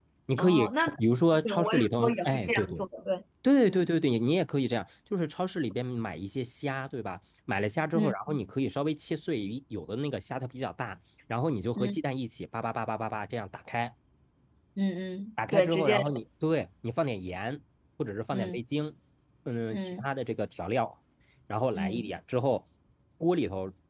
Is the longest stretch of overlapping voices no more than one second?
No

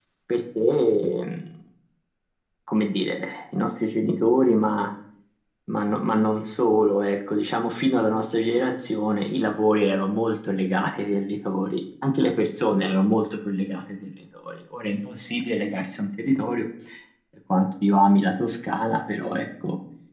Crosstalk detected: No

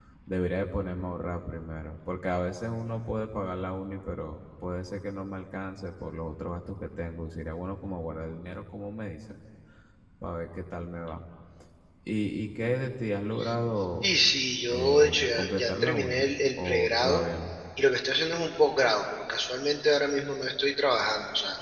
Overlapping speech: Yes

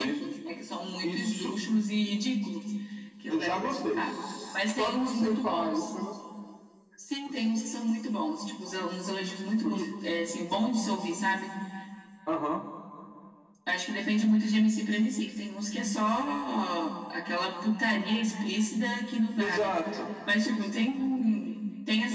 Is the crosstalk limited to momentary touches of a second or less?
No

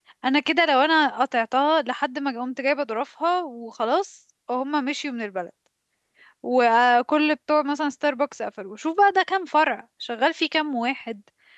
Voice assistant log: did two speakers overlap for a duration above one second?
No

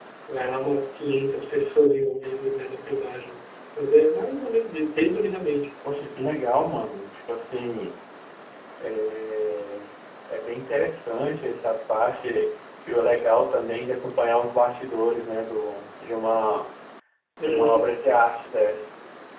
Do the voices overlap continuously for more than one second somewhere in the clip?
No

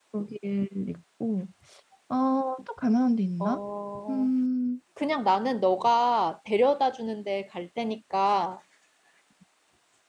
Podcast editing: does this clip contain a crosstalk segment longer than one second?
No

